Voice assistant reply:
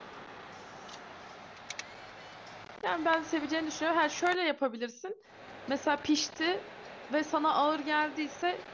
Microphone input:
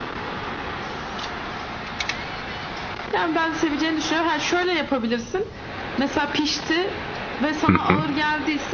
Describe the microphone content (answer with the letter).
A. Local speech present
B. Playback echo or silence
A